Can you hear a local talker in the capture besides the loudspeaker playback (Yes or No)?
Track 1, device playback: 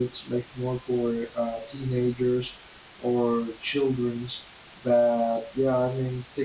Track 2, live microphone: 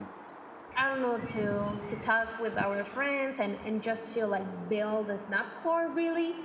Yes